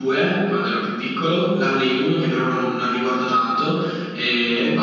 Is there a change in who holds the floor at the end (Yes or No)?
No